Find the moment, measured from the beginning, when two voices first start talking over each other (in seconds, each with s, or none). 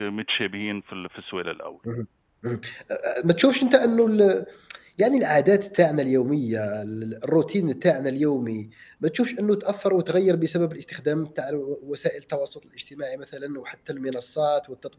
none